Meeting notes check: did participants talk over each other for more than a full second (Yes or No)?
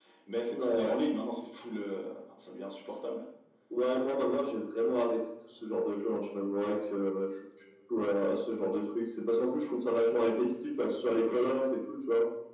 No